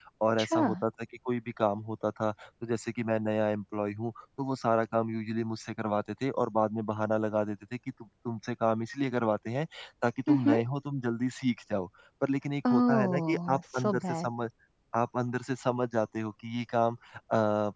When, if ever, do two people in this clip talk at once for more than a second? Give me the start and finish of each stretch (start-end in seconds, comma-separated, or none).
12.7-14.3